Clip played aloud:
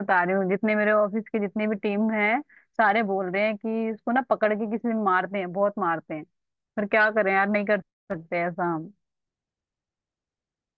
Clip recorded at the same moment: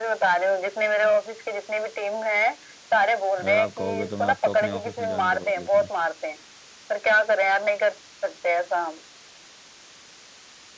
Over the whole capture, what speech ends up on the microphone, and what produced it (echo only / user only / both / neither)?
both